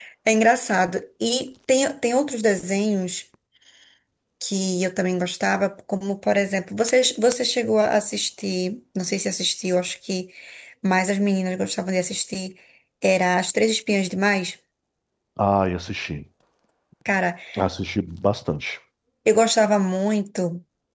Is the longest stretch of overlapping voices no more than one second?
Yes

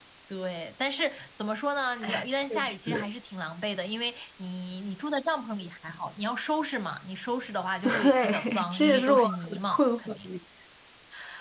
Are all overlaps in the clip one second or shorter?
No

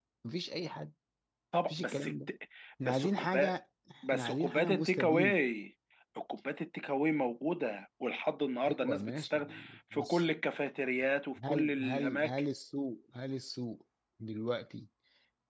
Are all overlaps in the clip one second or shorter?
No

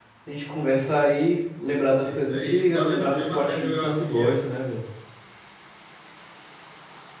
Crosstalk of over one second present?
Yes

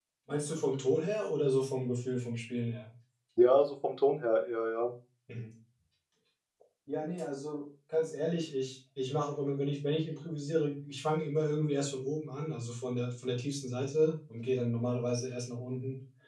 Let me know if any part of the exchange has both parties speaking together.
No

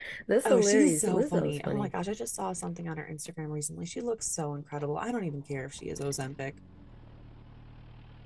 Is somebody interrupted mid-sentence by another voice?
Yes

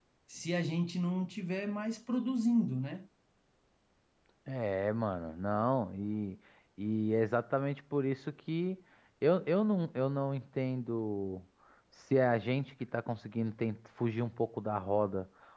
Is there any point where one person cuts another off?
No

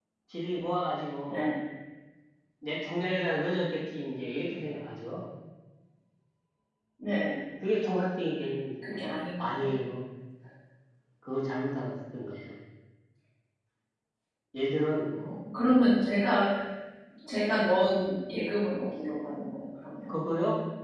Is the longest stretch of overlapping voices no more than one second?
Yes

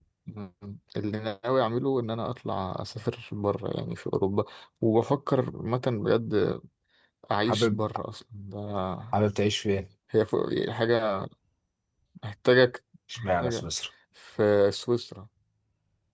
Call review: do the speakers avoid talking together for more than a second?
Yes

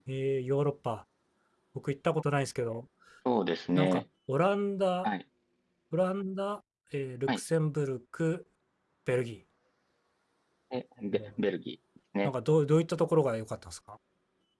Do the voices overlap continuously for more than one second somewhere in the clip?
No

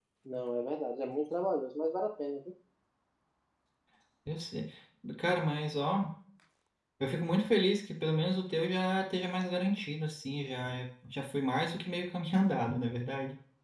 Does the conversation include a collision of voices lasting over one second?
No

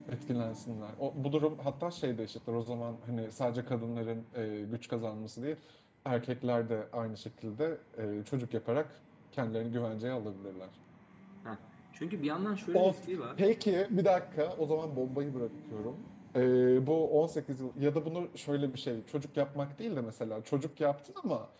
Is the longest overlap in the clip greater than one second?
No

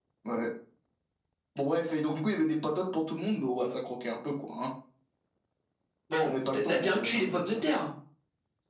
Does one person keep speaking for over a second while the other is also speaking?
Yes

